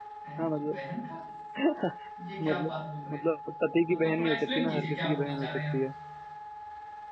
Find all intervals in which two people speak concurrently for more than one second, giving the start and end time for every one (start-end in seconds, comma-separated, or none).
3.9-5.8